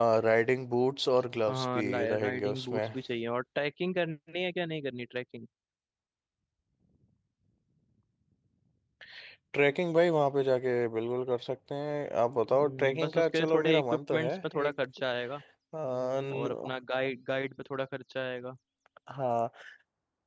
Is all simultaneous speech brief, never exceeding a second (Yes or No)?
No